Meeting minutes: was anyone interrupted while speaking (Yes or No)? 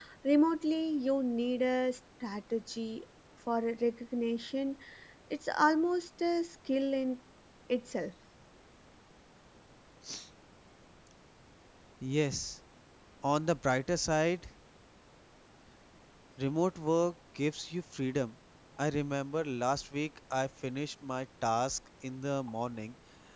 No